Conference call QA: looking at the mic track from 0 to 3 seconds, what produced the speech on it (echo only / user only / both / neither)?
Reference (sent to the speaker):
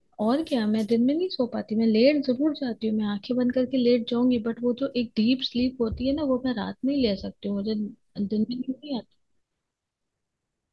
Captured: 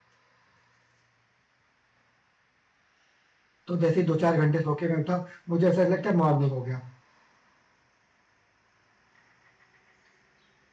neither